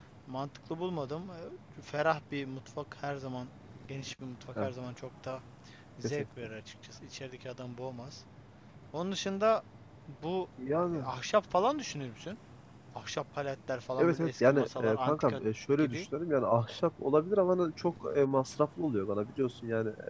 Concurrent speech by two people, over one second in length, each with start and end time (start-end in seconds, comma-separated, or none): 14.0-15.4